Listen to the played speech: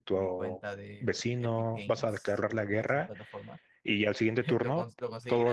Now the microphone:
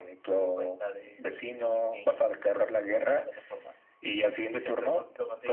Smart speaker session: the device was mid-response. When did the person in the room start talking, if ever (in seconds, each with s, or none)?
none